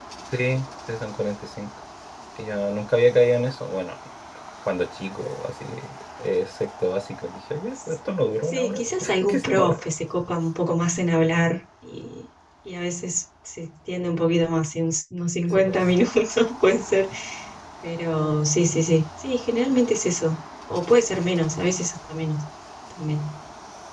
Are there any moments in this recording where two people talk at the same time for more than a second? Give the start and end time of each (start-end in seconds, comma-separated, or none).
8.5-9.8